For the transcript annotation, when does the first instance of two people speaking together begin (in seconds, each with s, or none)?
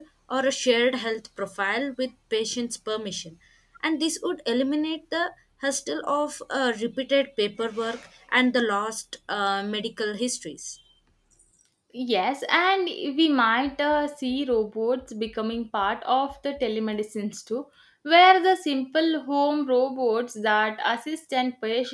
none